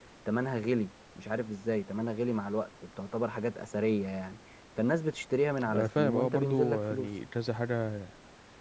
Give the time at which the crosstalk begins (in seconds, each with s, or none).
5.6 s